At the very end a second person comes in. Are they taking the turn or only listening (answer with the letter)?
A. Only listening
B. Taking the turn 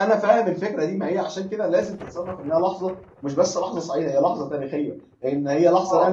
A